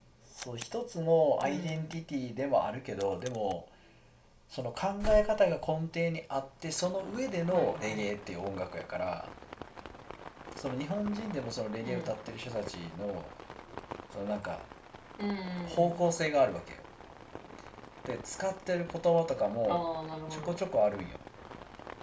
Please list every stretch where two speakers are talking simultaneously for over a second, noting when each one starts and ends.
none

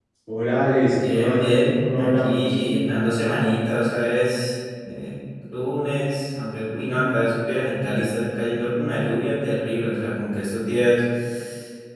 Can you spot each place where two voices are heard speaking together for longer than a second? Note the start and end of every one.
0.9-2.5

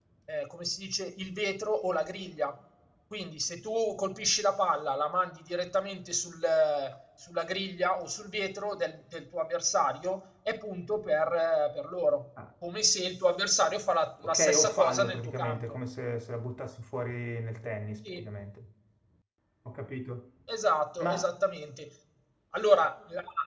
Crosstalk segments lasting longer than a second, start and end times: 14.2-15.8

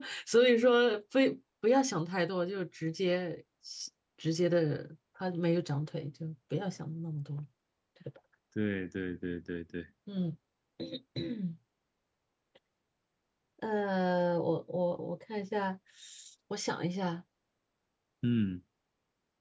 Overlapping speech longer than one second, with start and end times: none

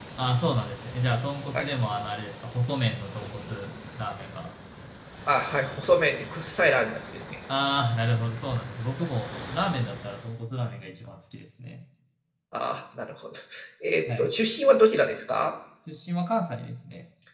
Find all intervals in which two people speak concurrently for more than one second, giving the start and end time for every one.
none

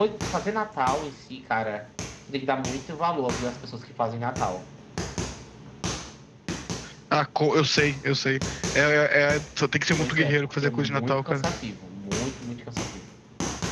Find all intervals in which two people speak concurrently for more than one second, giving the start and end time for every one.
10.0-11.4

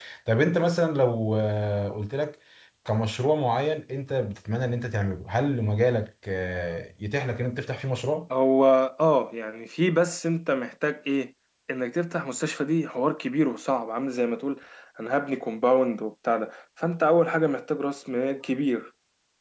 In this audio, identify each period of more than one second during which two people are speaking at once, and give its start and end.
none

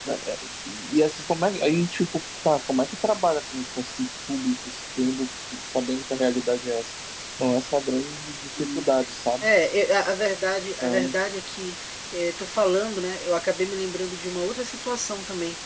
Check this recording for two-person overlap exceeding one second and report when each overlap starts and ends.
none

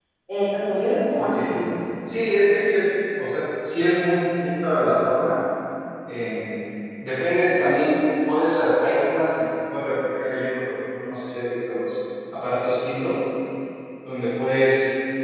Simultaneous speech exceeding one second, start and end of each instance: none

